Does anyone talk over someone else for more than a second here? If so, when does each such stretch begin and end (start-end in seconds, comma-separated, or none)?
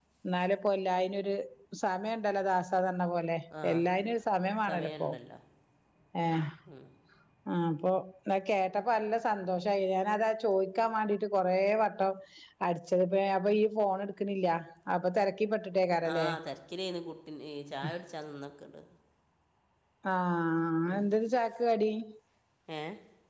none